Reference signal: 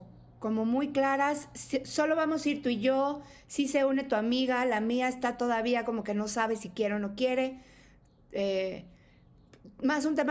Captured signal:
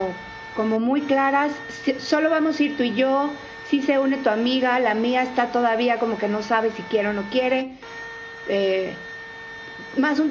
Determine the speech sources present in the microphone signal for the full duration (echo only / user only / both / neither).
echo only